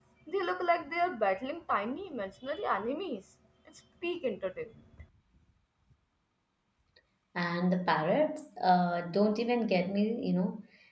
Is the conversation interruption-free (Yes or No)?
Yes